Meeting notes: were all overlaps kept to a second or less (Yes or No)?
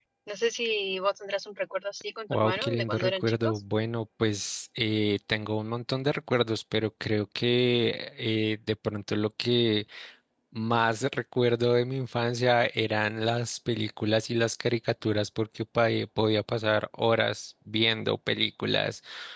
No